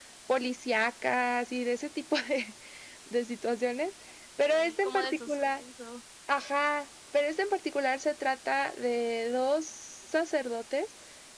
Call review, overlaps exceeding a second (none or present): present